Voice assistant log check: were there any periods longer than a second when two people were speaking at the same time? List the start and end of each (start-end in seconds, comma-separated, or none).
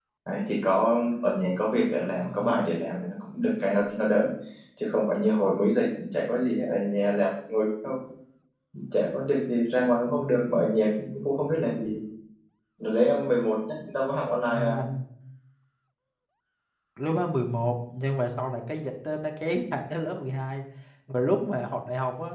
none